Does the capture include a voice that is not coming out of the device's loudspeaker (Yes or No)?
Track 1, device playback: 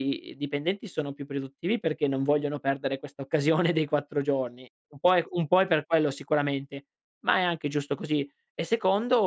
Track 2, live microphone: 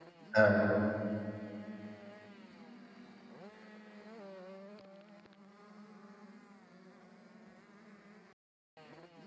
Yes